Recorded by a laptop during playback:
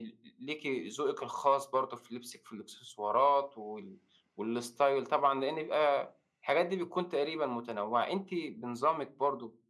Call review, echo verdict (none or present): present